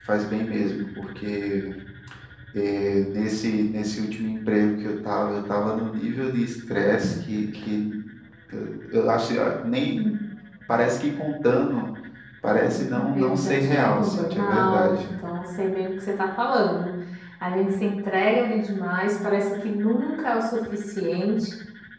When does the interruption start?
12.7 s

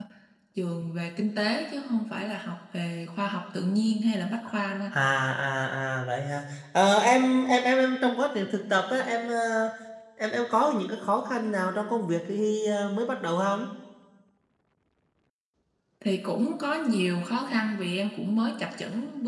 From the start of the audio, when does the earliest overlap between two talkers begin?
none

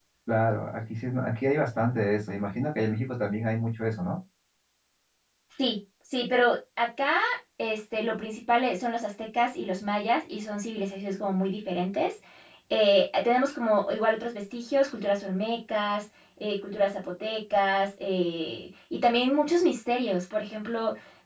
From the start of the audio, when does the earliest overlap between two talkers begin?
none

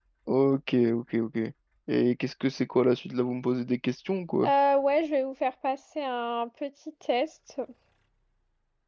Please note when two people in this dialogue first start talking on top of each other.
none

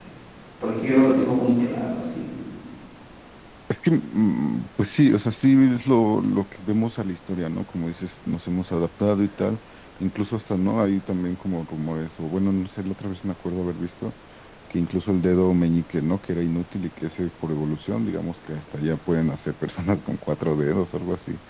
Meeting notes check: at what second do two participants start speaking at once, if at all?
none

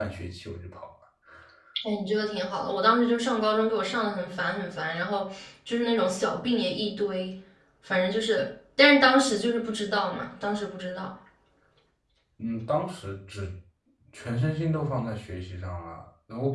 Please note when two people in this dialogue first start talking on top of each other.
none

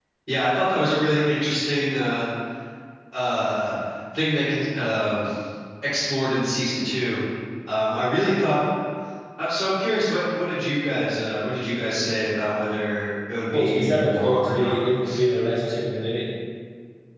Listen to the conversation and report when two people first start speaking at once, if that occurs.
13.5 s

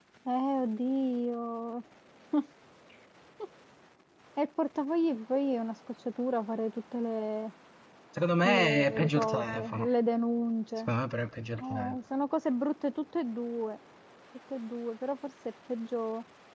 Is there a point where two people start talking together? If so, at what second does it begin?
8.4 s

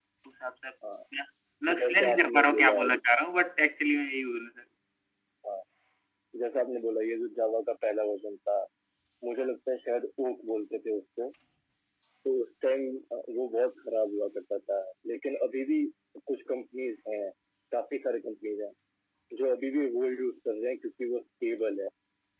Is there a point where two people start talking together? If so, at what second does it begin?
1.8 s

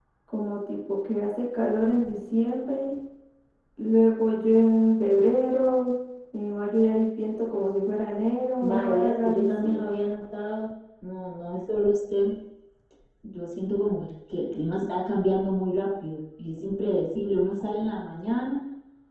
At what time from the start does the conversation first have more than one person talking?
8.6 s

